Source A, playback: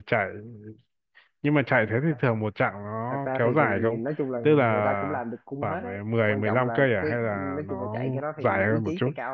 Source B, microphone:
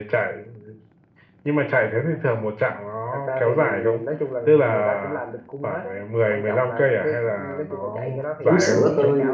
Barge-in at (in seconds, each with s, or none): 8.4 s